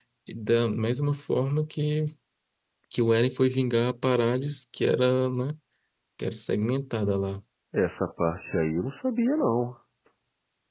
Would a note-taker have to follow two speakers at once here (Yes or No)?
No